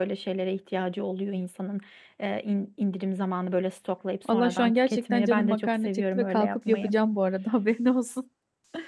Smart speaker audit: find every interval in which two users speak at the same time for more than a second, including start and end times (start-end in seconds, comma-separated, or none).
4.3-6.9